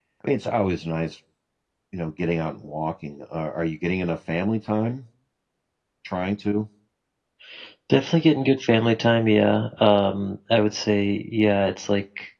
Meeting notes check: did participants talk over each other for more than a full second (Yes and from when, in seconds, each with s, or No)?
No